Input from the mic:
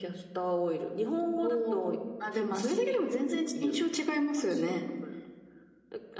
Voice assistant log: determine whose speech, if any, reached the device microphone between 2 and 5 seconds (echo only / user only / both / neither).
echo only